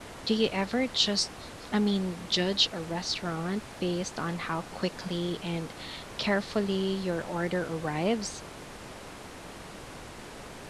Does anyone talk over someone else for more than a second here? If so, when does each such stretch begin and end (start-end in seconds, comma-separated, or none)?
none